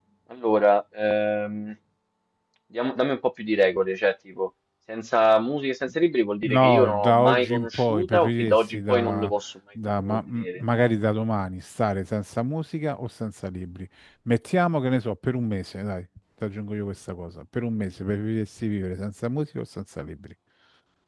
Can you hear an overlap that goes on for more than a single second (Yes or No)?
Yes